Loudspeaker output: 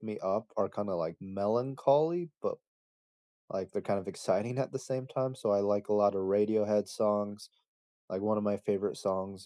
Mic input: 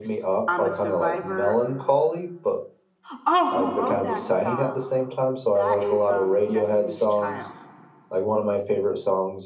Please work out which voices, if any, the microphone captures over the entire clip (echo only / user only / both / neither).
both